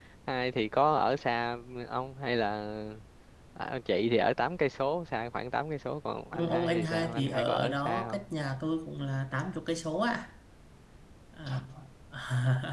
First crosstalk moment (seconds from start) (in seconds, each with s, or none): 6.3 s